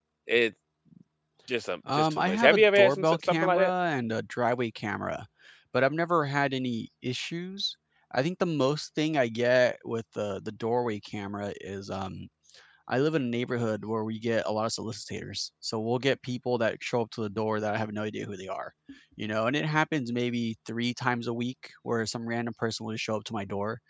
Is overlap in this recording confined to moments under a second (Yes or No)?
No